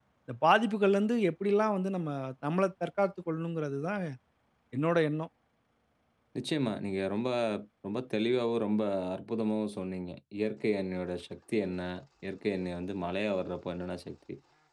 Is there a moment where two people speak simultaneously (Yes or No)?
No